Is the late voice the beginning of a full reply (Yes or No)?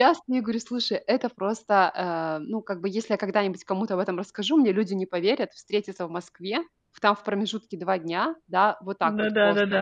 No